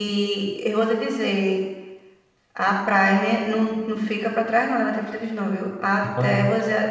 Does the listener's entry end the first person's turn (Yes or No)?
No